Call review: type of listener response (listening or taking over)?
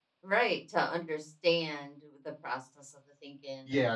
taking over